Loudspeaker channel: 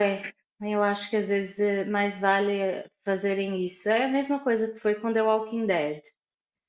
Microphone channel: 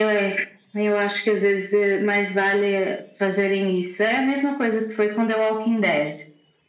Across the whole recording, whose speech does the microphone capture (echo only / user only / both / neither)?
echo only